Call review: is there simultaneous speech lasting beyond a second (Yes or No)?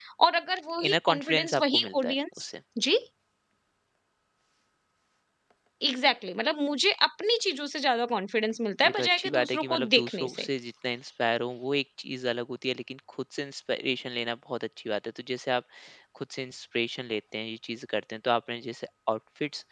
Yes